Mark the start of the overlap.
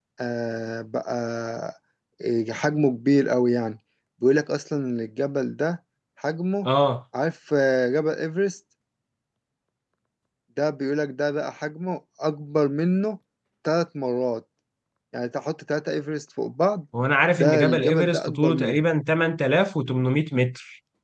17.4 s

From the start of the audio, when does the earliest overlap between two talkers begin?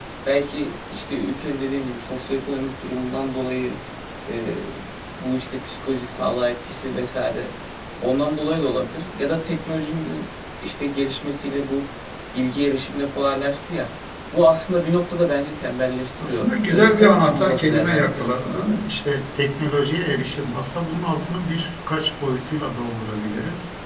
16.2 s

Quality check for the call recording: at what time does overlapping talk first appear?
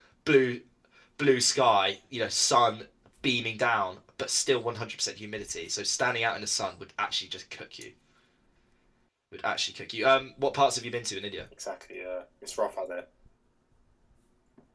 none

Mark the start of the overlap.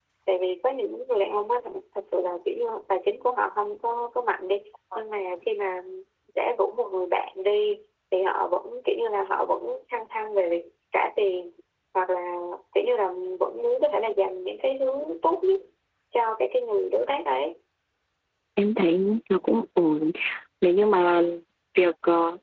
none

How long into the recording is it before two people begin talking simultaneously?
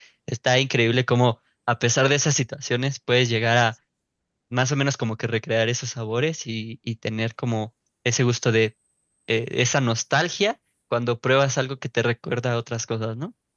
none

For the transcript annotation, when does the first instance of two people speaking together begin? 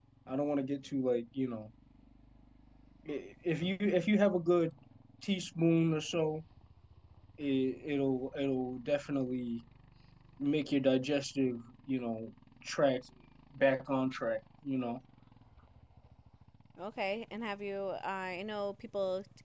none

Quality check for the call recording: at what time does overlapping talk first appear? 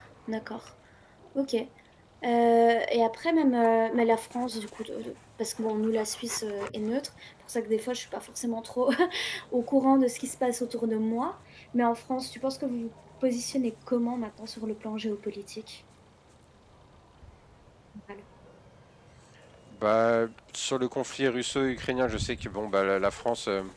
none

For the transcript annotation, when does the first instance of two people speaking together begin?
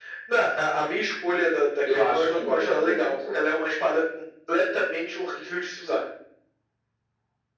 1.9 s

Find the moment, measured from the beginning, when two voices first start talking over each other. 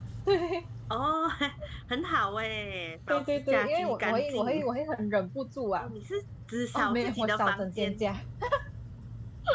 3.1 s

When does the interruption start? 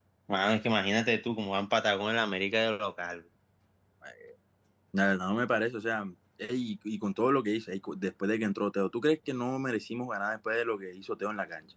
none

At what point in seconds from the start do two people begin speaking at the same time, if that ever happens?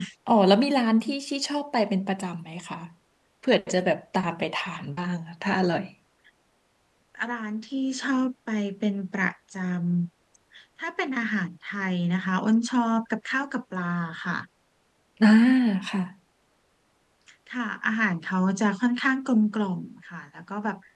none

